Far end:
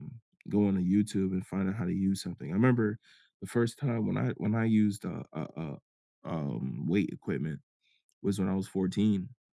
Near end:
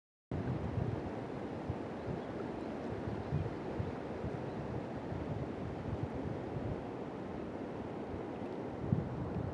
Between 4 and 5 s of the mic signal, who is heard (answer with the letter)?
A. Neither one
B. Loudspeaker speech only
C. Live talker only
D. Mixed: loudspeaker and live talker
A